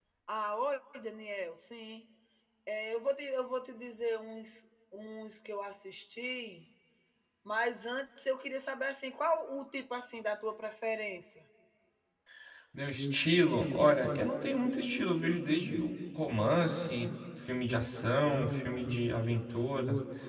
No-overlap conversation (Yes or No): Yes